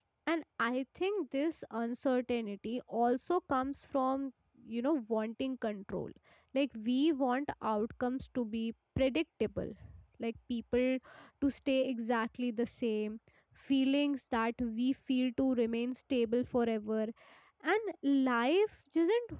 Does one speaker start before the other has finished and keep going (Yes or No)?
No